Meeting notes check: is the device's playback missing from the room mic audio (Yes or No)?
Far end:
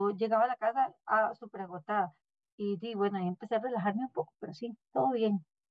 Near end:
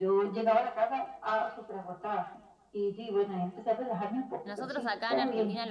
No